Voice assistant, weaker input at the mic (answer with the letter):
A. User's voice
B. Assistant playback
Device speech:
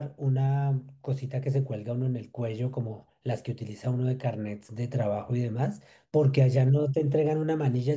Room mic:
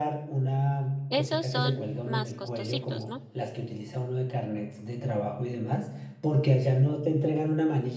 A